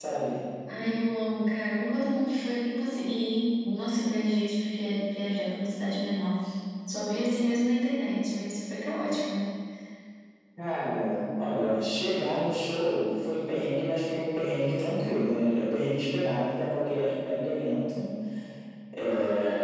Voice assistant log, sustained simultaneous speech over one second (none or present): none